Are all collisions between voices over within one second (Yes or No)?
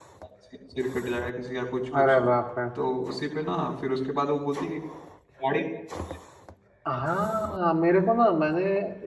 Yes